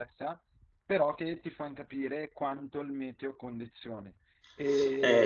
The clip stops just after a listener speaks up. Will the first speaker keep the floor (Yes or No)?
No